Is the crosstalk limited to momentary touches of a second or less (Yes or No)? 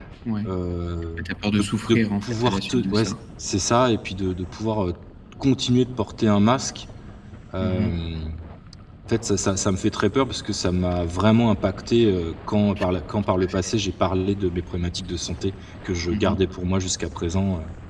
No